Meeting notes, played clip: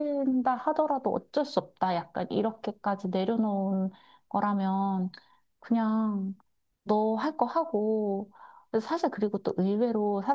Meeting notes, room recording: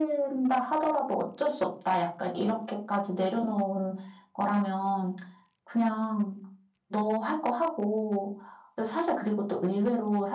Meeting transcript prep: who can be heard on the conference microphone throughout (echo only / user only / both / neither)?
echo only